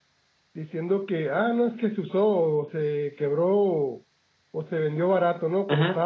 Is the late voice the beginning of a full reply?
Yes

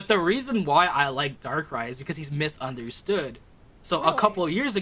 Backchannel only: Yes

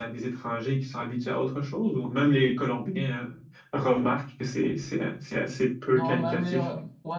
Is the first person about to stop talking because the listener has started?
Yes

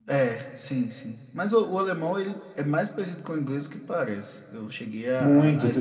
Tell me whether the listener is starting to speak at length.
Yes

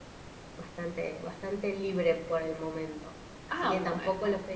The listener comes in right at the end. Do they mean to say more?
No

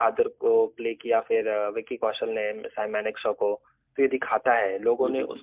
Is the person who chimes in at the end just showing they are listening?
Yes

